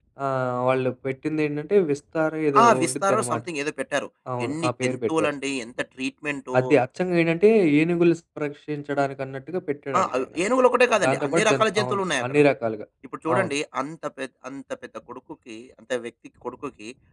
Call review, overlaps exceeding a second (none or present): present